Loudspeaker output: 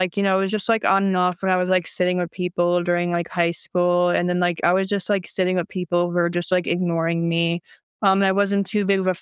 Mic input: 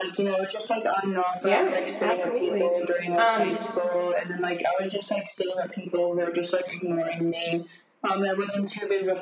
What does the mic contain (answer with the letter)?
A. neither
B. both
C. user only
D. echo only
B